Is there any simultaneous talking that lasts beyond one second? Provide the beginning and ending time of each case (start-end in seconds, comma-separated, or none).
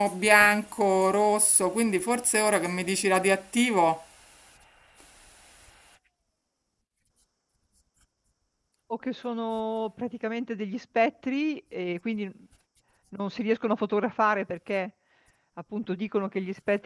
none